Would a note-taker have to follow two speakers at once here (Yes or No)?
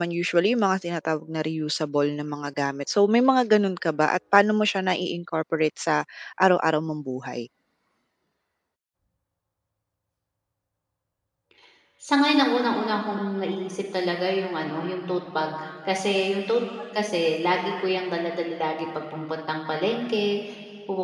No